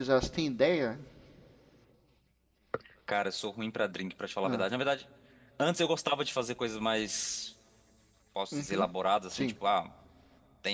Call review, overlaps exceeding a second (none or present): none